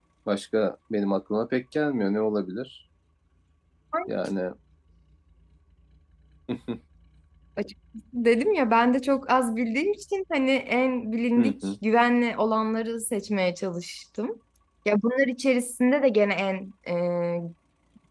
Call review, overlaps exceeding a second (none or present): none